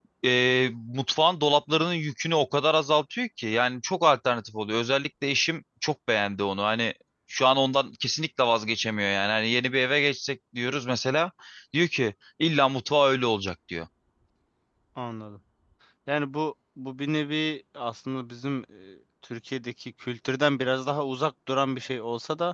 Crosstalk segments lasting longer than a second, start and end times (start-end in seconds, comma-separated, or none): none